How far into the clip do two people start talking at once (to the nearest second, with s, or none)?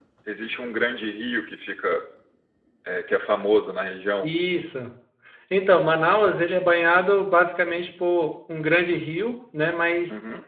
none